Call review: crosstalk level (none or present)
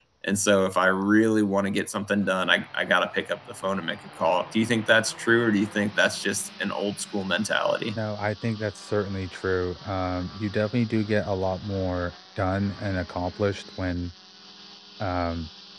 none